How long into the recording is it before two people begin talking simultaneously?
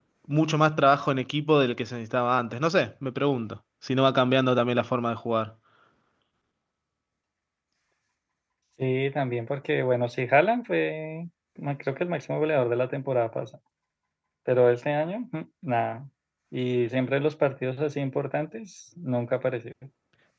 none

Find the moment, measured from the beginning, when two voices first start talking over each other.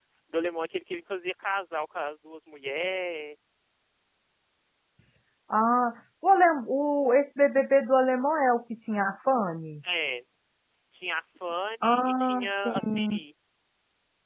11.8 s

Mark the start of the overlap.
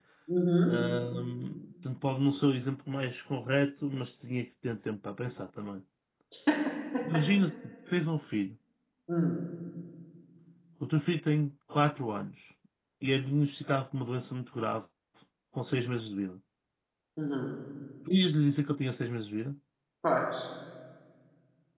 none

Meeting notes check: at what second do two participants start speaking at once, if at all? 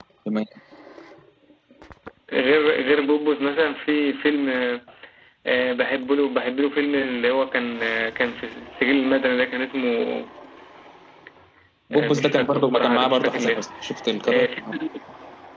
11.9 s

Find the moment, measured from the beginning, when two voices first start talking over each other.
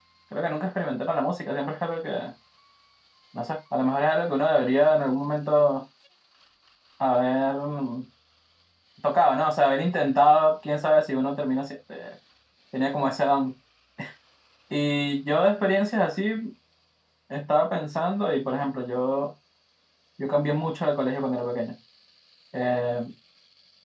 none

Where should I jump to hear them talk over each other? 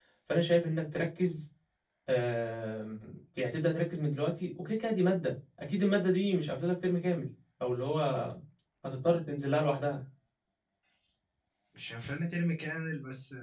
none

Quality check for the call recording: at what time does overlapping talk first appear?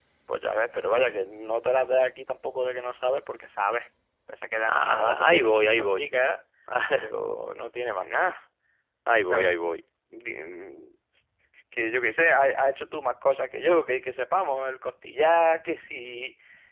4.7 s

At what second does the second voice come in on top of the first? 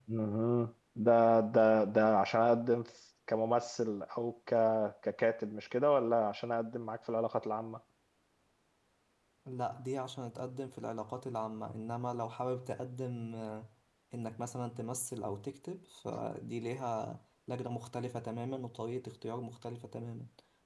none

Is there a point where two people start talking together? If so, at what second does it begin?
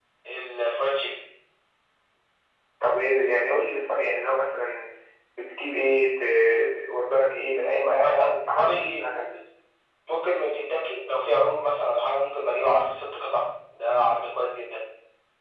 7.8 s

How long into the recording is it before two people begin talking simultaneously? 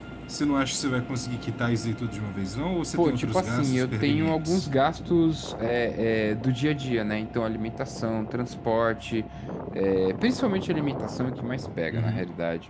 3.0 s

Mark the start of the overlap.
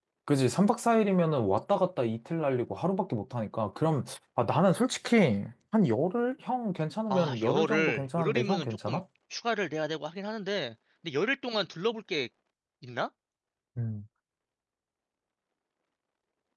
7.1 s

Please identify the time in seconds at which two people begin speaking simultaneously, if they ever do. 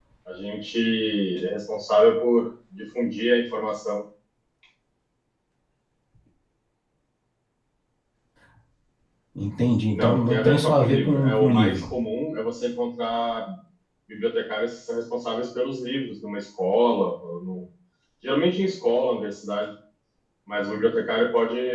9.9 s

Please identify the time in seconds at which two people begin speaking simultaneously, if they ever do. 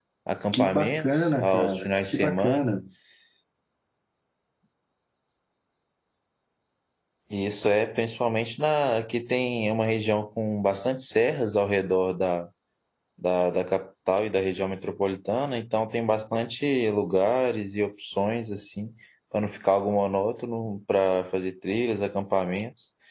0.5 s

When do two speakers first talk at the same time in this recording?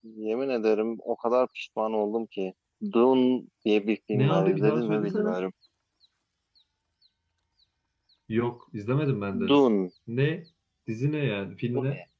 4.1 s

